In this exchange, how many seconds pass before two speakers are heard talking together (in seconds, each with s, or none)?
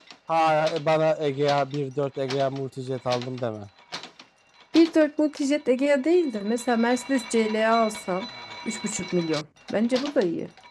none